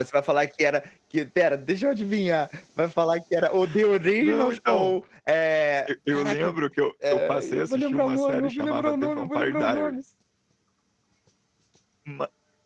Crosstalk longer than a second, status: present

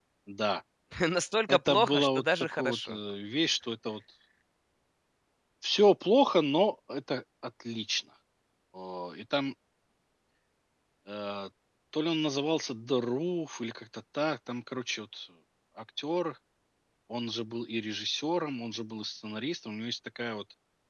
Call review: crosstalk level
present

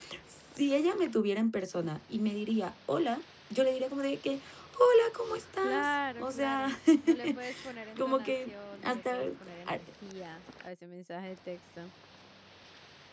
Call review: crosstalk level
present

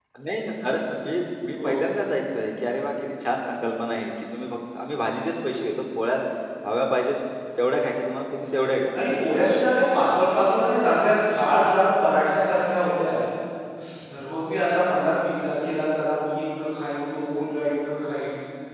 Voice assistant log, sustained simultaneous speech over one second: none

